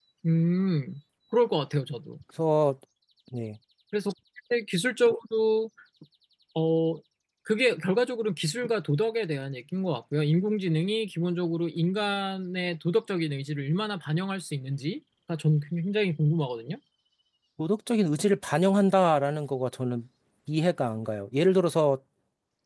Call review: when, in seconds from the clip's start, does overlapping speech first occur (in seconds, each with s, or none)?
none